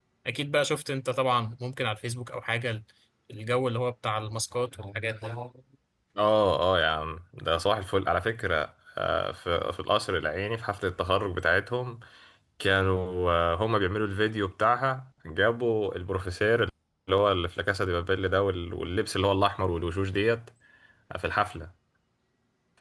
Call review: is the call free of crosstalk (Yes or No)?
Yes